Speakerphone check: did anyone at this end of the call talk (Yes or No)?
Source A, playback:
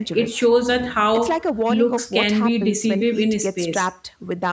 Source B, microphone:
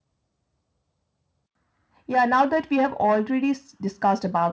Yes